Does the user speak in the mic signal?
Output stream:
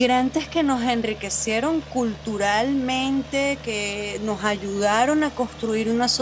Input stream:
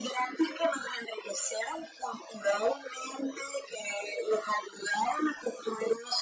No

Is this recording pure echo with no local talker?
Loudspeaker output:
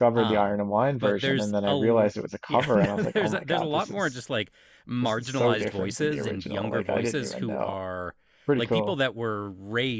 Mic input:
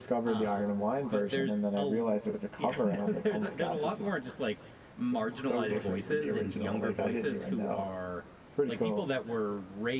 Yes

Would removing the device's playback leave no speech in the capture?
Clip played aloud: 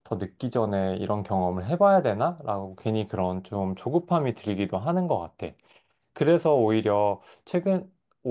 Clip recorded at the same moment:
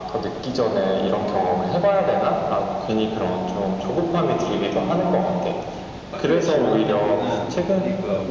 No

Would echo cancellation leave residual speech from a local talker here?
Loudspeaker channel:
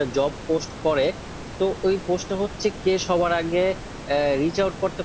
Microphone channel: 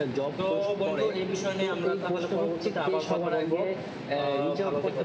Yes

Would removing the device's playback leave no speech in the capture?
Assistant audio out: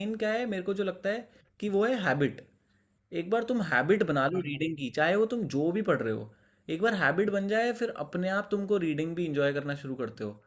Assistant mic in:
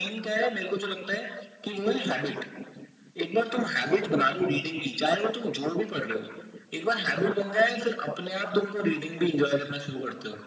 Yes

